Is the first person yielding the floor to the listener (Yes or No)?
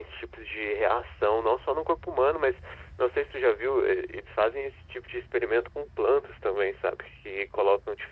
No